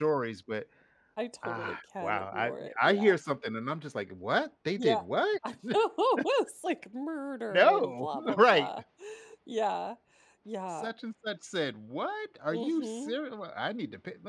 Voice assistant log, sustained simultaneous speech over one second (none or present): present